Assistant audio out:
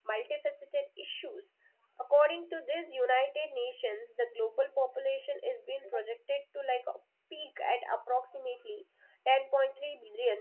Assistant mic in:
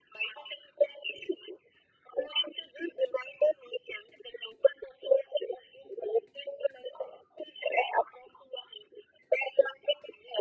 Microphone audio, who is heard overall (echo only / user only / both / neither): echo only